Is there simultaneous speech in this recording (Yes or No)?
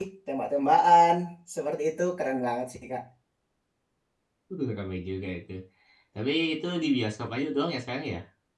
No